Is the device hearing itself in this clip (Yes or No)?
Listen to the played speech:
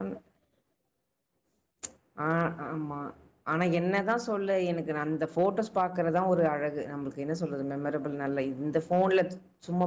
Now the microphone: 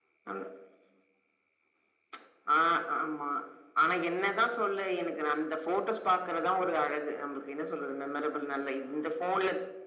Yes